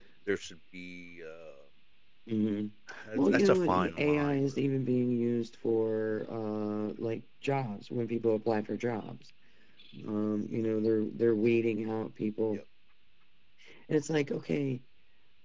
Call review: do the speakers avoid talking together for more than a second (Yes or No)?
No